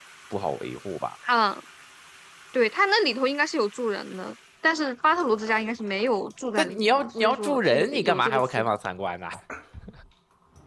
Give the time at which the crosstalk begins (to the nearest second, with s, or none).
7 s